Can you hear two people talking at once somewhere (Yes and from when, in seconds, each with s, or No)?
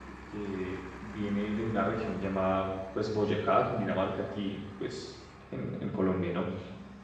No